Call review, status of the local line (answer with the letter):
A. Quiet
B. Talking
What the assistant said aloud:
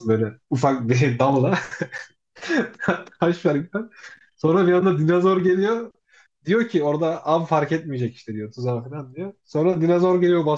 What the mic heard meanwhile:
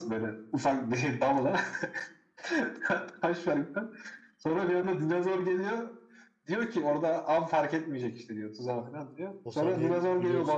B